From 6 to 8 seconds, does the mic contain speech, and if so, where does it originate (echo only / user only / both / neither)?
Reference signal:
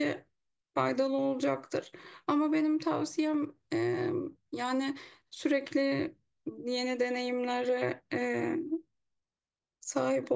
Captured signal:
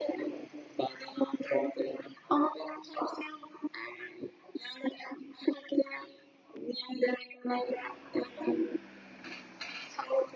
echo only